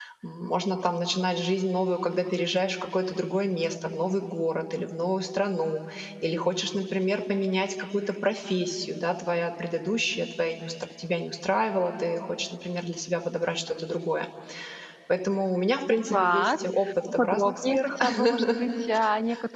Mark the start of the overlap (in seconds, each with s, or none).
16.1 s